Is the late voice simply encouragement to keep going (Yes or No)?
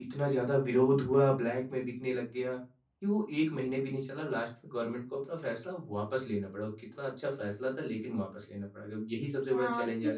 No